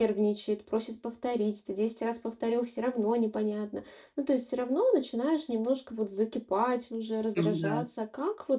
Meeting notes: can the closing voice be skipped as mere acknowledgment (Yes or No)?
Yes